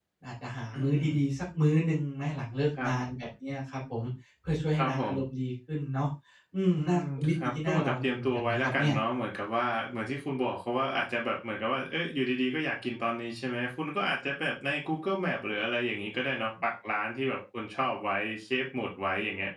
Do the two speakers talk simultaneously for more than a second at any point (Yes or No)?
Yes